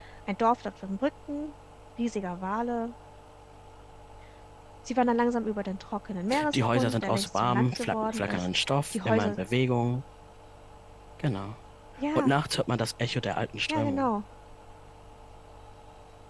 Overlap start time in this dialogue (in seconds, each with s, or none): 6.5 s